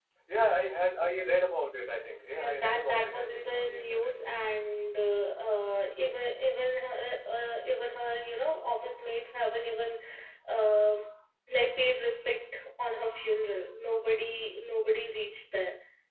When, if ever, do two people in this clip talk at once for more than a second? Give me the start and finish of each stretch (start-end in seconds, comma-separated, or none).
2.4-4.2